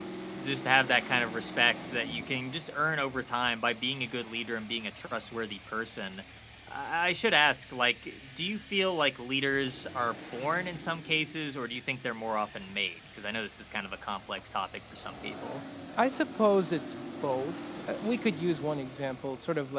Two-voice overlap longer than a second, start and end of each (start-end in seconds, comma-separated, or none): none